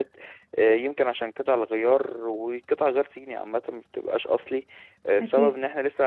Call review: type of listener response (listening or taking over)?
listening